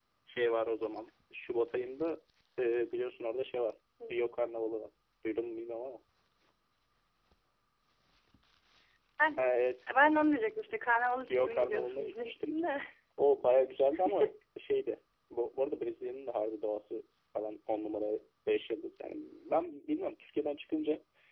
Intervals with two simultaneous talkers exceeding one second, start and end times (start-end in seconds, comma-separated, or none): 11.3-12.5